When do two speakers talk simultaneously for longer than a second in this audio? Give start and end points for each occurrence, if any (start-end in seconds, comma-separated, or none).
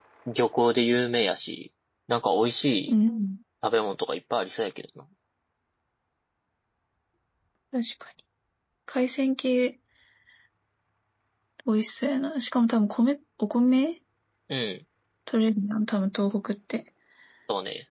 none